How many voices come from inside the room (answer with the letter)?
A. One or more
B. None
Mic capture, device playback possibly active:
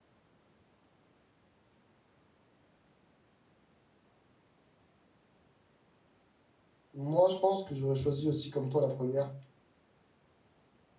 A